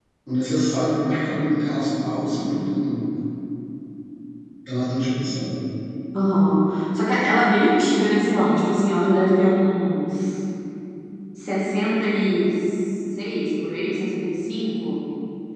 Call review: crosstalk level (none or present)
none